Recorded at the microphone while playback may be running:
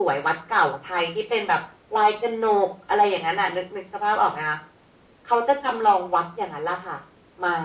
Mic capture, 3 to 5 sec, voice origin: echo only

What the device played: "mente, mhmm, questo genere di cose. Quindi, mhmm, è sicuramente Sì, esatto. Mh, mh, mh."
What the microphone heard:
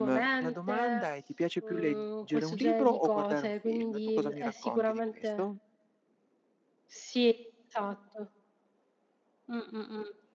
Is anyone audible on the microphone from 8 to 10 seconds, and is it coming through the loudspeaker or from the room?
echo only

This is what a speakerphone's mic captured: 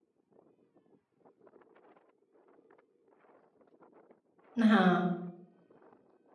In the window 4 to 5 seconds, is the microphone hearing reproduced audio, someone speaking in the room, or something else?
user only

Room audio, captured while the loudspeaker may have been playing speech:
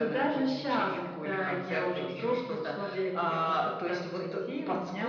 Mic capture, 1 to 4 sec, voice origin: echo only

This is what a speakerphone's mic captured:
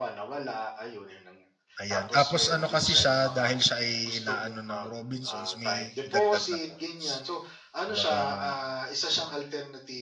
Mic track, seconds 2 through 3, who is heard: both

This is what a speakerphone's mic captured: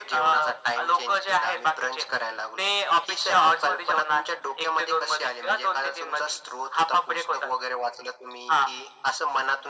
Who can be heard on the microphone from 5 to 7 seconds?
echo only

